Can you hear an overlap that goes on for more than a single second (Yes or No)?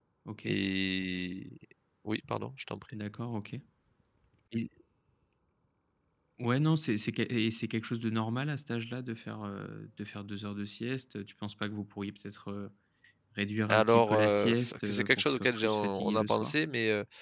Yes